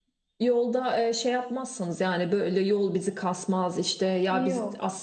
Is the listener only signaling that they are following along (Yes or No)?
Yes